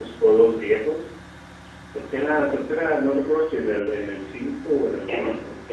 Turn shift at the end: Yes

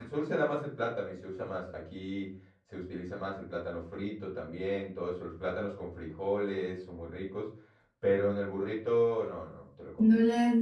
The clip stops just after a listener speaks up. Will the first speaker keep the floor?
No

